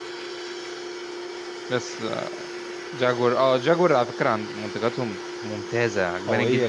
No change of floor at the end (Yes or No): No